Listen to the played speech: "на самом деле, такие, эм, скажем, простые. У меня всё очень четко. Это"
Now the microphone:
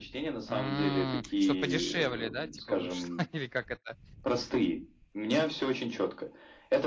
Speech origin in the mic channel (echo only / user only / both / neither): both